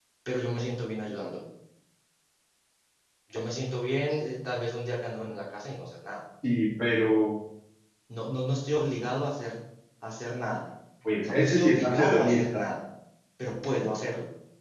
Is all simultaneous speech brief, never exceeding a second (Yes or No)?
No